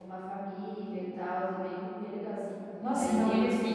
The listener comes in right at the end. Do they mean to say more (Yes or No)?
Yes